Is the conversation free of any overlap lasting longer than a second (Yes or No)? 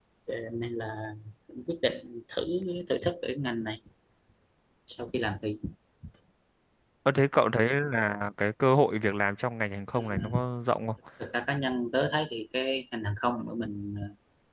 Yes